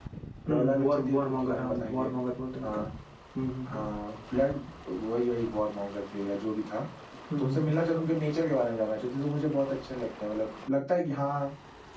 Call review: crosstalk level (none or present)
present